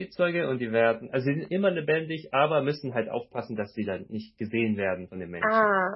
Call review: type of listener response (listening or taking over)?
taking over